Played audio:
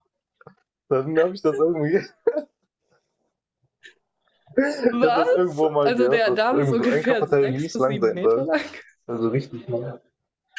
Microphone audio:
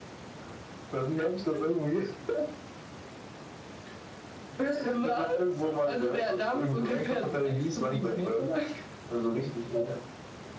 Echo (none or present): present